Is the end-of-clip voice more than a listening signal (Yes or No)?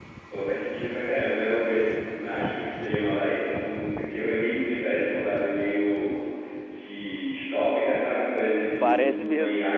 No